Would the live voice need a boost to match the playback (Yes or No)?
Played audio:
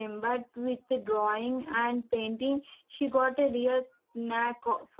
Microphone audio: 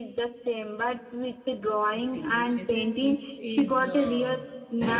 Yes